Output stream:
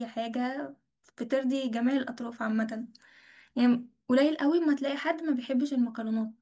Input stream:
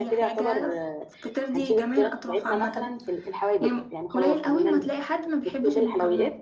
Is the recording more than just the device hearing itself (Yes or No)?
Yes